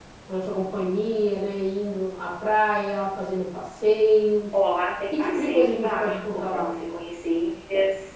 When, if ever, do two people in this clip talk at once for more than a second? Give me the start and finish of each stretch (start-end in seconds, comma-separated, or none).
5.1-6.7